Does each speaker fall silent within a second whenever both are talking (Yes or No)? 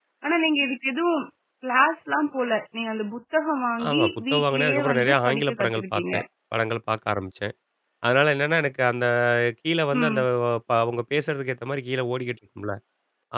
No